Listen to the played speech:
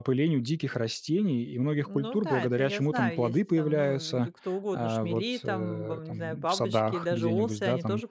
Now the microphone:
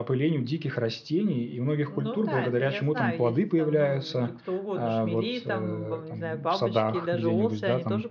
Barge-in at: none

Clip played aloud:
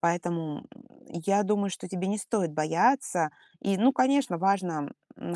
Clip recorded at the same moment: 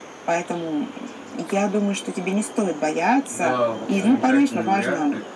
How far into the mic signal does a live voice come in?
3.3 s

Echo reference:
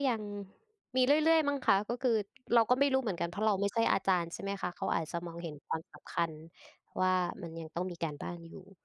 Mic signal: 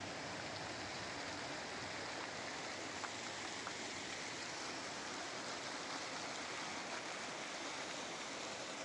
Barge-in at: none

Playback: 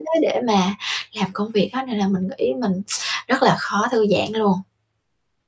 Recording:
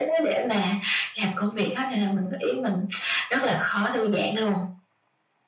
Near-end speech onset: none

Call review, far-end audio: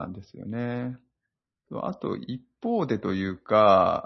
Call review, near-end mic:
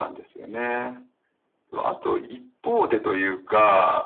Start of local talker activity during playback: none

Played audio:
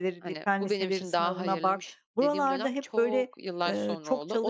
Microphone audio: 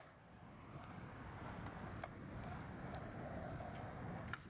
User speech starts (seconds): none

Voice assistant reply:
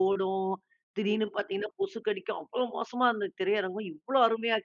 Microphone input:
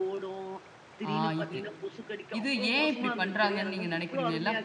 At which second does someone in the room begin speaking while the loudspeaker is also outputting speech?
1.1 s

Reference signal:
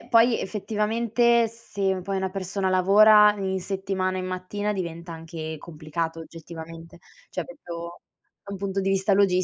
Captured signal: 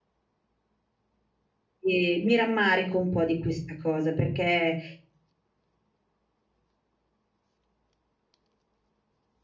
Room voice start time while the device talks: 1.8 s

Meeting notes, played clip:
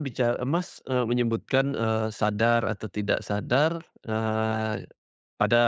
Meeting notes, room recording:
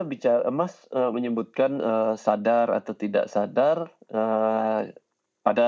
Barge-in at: none

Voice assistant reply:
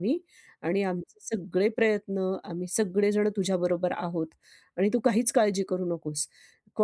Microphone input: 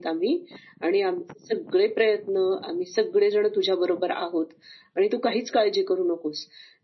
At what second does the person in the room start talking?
none

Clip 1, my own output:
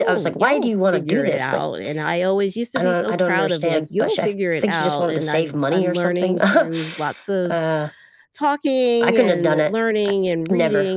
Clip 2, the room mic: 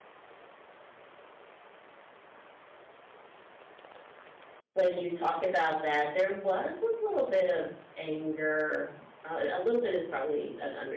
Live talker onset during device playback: 4.7 s

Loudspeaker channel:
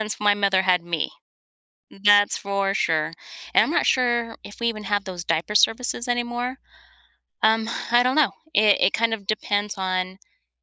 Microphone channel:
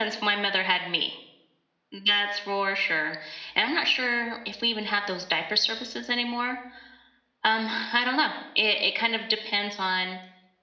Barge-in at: none

